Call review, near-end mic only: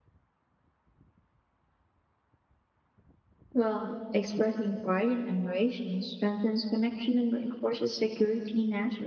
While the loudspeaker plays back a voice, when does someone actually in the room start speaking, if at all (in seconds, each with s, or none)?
3.5 s